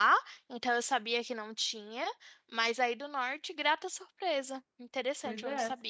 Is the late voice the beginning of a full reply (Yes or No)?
Yes